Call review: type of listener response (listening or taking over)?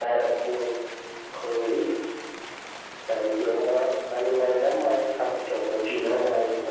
listening